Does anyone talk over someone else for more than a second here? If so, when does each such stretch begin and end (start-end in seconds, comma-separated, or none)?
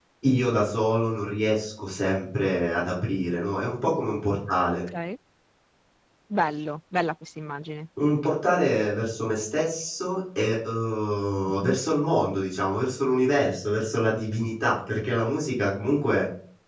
none